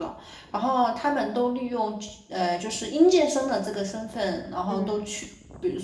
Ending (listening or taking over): listening